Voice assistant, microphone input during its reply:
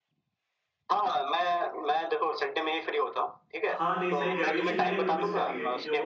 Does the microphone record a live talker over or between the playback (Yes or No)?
Yes